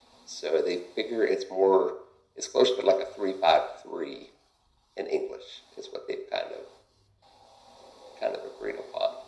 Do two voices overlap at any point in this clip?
No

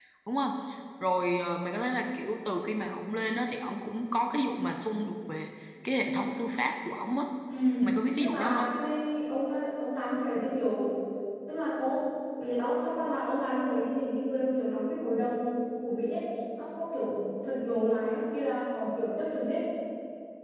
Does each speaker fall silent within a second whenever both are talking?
Yes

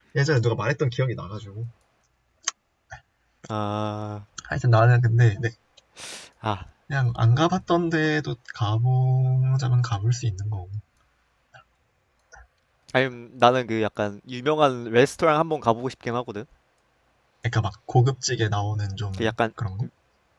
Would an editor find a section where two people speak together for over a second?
No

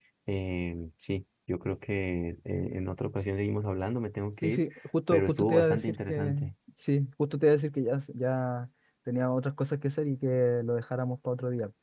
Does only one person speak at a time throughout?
No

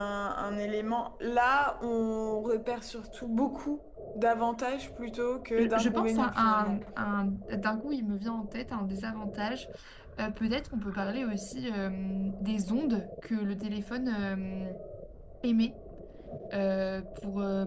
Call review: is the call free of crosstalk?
No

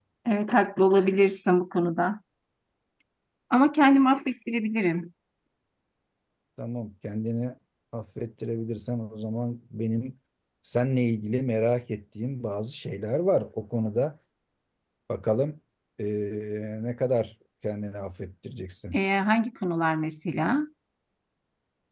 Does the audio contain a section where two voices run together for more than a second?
No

